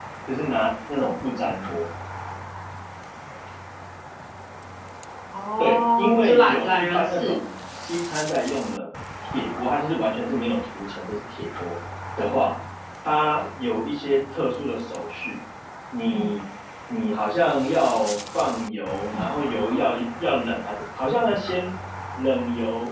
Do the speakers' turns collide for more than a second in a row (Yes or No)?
Yes